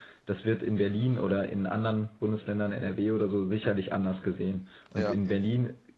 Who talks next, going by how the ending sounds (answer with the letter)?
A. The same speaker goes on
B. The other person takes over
A